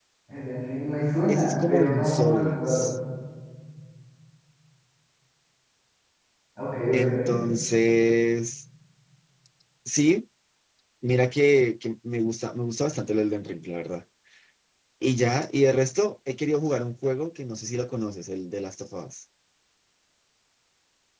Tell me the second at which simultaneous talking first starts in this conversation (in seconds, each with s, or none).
1.3 s